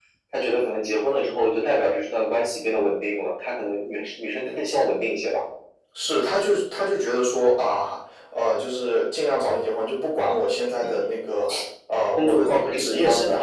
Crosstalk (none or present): present